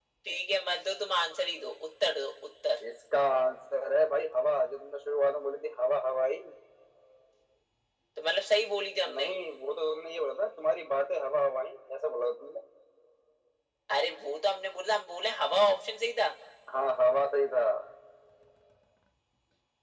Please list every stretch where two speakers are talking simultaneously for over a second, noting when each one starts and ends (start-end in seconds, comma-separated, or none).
none